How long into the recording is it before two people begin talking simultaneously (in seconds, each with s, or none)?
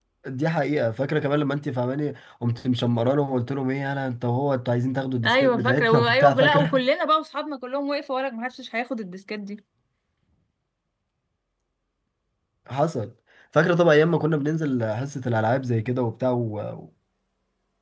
5.2 s